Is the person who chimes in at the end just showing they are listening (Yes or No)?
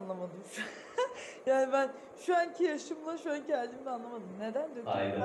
No